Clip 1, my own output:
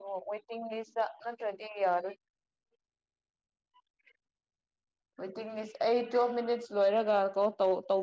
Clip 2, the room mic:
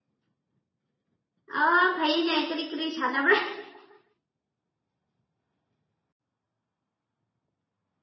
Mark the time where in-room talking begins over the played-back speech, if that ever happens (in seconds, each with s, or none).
1.6 s